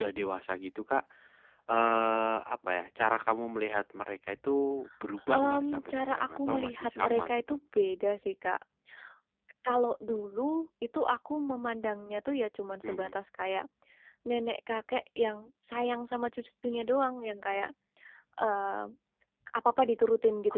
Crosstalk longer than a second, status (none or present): present